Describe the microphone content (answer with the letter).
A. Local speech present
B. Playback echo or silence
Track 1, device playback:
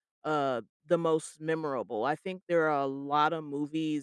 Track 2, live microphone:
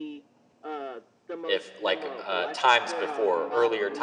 A